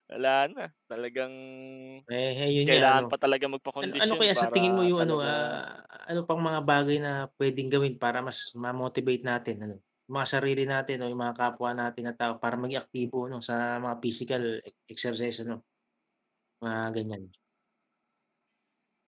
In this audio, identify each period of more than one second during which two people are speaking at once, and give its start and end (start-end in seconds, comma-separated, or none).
3.8-5.6